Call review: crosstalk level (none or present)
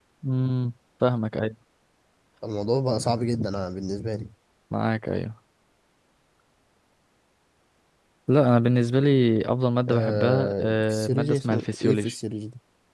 present